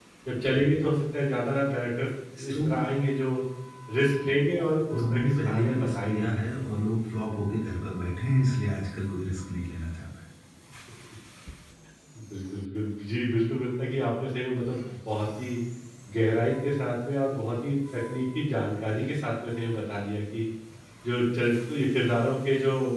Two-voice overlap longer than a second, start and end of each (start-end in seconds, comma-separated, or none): 5.0-6.7